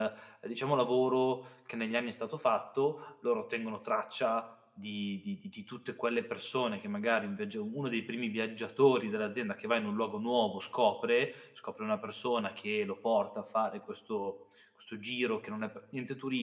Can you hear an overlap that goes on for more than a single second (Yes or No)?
No